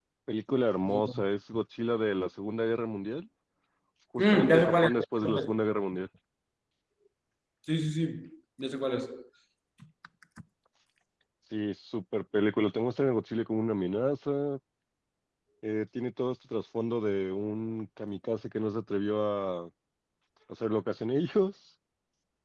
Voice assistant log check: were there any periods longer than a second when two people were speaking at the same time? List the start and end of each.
4.2-5.5

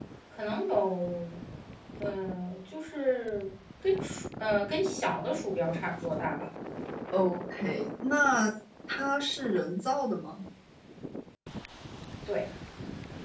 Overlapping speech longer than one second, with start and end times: none

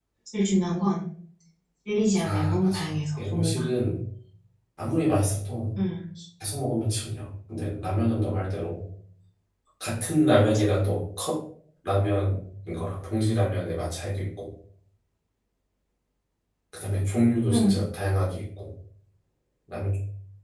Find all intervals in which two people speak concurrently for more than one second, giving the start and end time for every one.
2.2-3.6

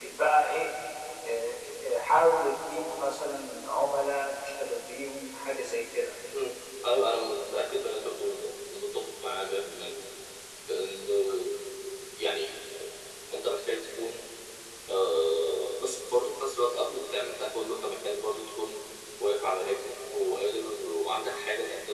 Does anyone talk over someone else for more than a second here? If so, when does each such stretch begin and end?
none

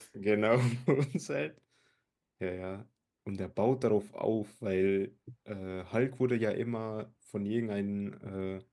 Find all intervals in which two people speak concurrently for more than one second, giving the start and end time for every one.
none

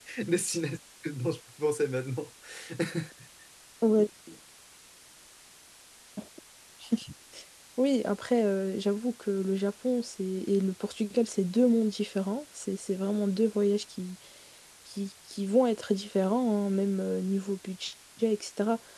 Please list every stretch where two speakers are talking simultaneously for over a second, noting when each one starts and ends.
none

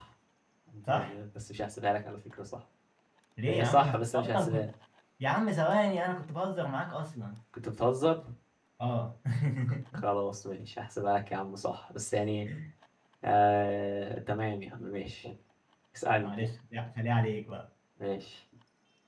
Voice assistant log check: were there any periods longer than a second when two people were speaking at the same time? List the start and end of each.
3.5-4.7

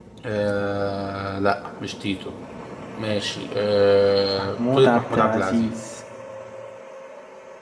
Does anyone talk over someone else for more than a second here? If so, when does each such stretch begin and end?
4.4-5.7

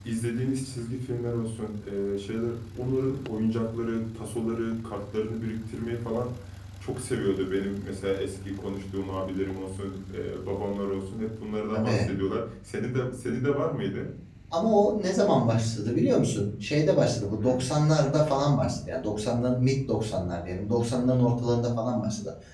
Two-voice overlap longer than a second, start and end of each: none

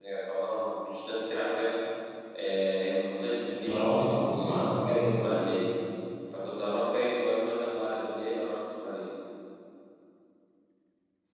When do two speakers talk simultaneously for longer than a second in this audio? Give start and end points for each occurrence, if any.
3.7-5.3

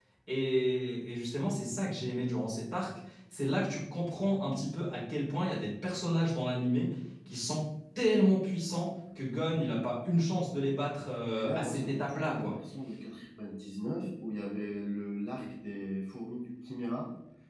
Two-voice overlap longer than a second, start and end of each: 11.3-12.5

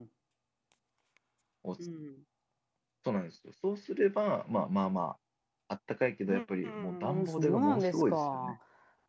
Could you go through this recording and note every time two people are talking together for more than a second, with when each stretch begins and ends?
6.3-8.6

